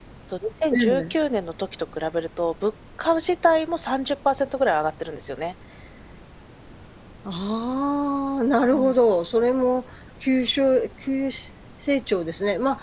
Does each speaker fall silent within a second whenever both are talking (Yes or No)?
Yes